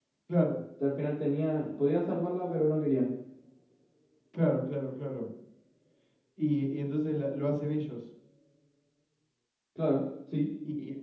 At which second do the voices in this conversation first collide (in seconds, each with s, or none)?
none